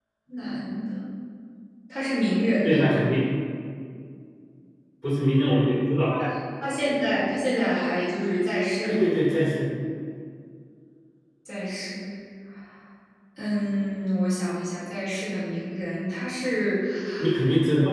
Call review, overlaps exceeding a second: none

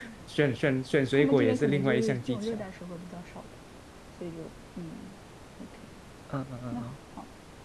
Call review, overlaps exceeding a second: present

